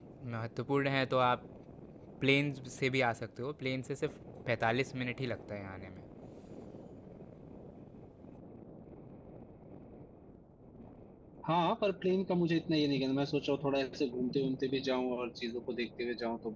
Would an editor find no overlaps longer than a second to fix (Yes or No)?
Yes